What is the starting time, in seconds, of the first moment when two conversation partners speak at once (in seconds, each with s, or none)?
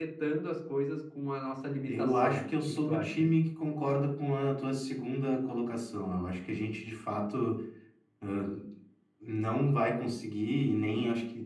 1.9 s